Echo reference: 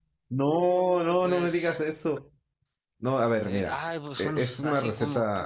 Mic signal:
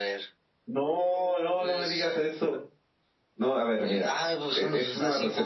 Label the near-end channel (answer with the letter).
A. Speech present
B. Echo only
B